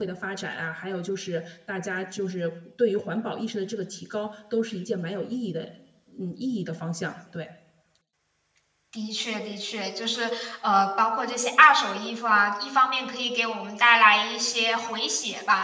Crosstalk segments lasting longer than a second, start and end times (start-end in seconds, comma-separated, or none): none